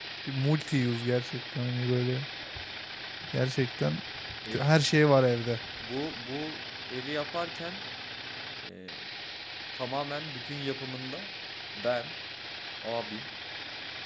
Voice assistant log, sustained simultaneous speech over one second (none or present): none